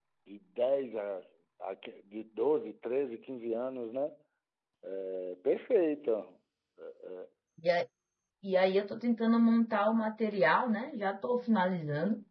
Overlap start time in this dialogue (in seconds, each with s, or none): none